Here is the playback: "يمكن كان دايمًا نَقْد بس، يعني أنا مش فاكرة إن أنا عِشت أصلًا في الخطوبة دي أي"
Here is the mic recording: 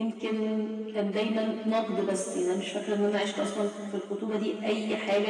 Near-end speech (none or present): none